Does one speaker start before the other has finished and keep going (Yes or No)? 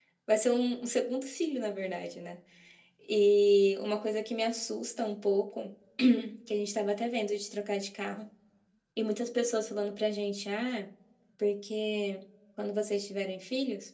No